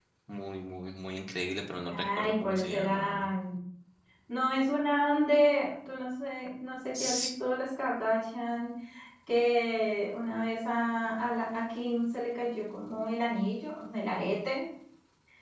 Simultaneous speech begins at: 2 s

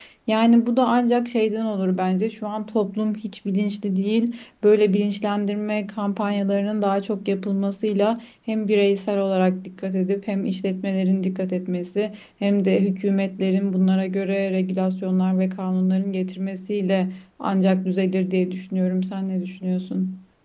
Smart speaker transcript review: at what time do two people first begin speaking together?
none

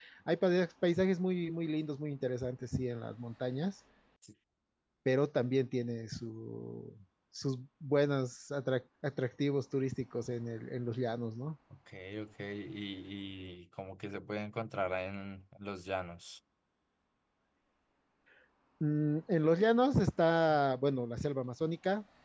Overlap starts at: none

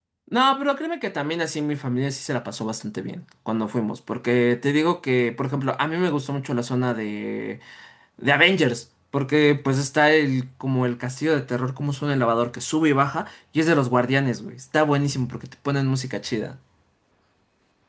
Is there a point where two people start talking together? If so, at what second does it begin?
none

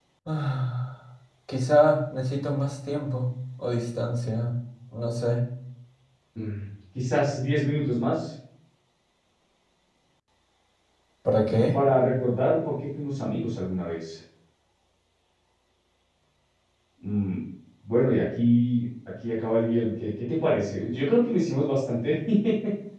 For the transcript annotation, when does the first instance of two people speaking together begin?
none

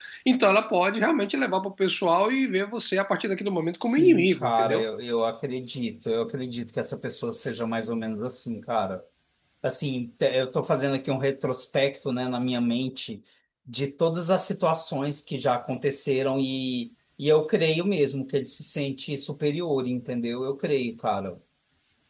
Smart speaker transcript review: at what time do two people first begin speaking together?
4 s

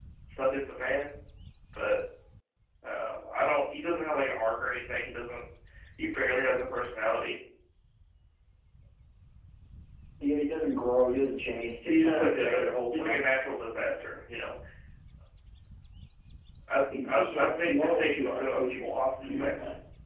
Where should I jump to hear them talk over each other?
12 s

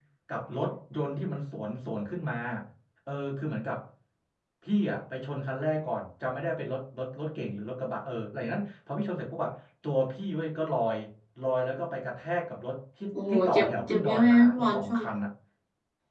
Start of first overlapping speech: 13 s

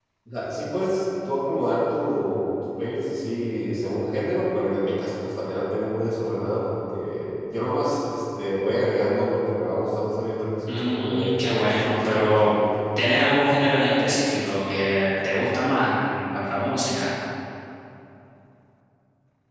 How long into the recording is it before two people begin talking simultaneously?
11 s

